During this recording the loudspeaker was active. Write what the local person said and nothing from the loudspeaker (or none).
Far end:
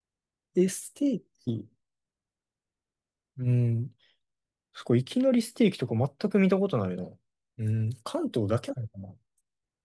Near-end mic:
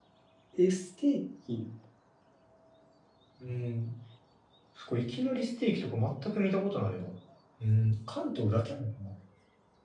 none